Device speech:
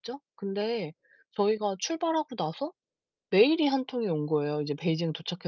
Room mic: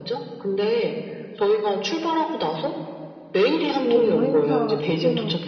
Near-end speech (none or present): present